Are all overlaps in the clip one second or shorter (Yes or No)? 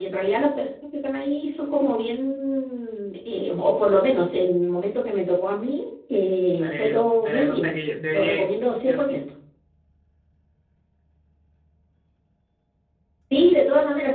No